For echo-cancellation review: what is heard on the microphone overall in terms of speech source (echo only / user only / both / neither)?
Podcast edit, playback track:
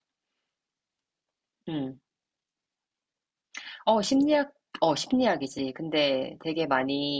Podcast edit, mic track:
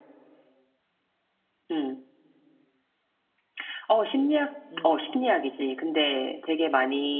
both